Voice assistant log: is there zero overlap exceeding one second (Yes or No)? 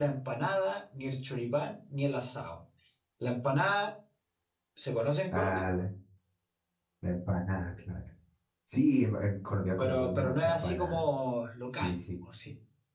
No